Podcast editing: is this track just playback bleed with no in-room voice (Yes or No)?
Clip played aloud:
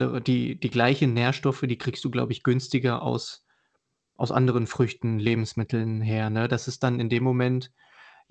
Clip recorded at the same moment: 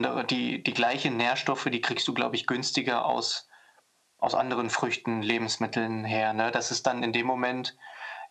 Yes